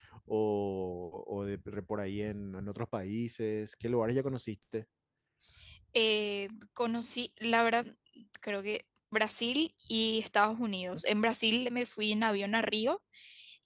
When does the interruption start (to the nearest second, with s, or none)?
none